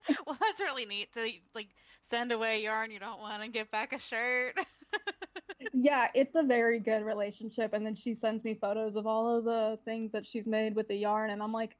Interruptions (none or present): none